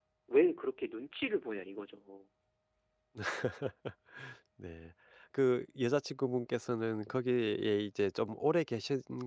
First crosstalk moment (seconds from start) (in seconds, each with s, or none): none